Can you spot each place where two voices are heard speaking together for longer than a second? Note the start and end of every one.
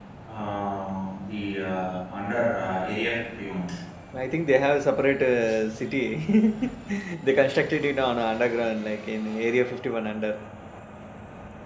none

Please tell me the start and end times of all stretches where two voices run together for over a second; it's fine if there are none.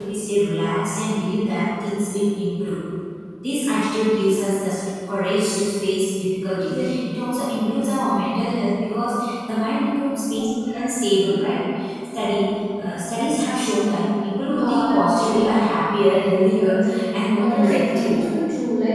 14.5-15.7, 16.5-18.1

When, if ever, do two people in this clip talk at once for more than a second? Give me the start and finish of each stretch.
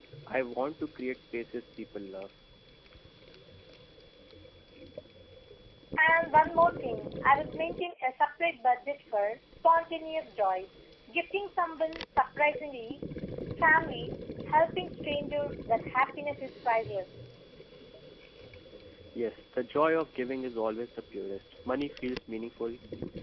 none

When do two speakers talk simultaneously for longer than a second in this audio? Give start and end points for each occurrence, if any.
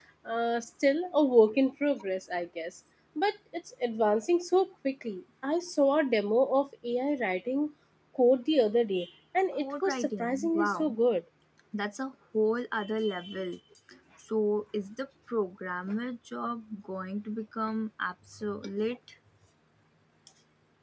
9.5-10.9

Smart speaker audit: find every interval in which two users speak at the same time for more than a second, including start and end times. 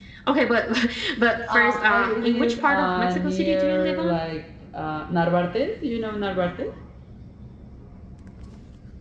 1.5-4.2

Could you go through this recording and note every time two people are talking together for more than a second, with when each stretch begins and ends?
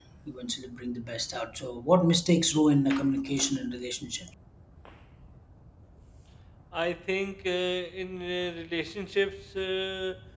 none

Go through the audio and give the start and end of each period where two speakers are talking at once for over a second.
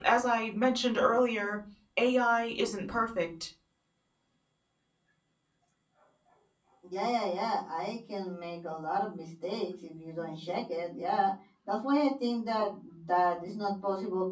none

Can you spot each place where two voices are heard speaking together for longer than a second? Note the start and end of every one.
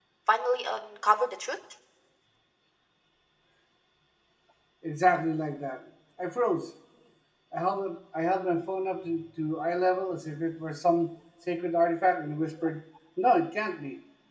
none

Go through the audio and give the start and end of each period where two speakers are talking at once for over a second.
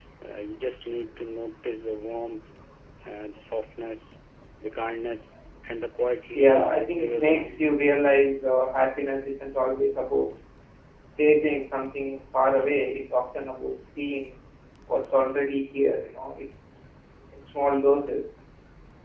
6.3-7.8

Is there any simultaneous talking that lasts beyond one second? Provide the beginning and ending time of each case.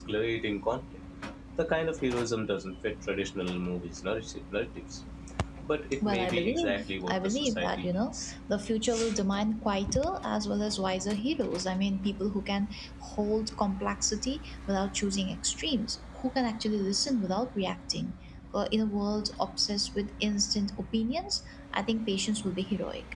6.0-8.3

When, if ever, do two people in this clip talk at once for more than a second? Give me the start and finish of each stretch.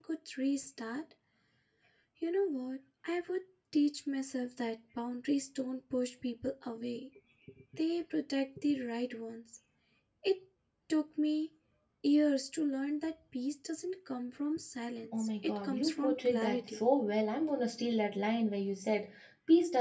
15.2-16.8

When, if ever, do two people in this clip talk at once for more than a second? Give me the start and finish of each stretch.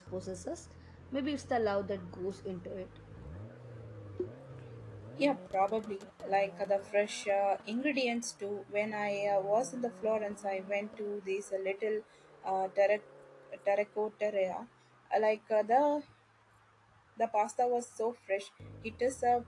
none

